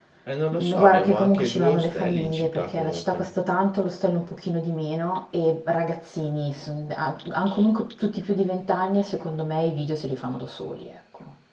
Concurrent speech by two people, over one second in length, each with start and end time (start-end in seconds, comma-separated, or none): 0.6-3.3